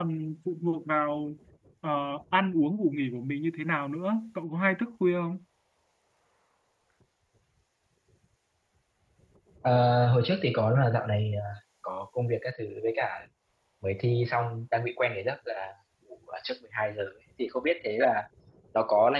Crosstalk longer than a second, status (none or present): none